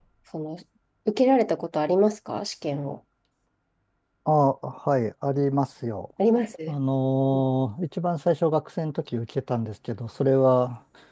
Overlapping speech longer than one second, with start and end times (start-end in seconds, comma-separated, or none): none